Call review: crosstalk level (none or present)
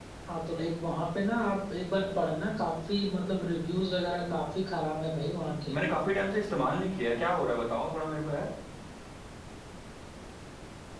none